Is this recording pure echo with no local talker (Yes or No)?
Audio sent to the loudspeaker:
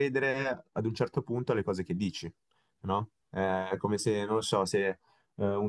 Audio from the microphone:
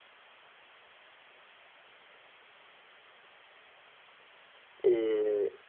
No